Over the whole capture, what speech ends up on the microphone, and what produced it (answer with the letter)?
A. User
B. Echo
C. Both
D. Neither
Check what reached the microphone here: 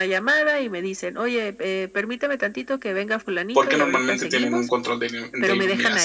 C